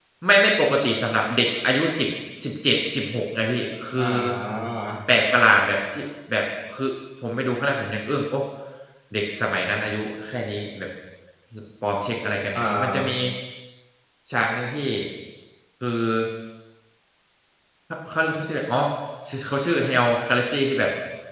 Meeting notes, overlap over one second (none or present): none